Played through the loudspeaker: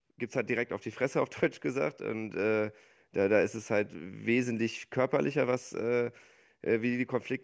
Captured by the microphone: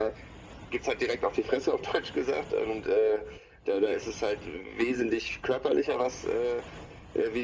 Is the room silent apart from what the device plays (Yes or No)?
Yes